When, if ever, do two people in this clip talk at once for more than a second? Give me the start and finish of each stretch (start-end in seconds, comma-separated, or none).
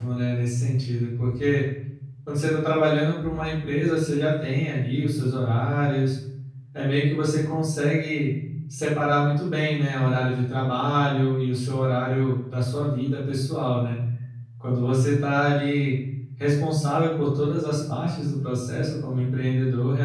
none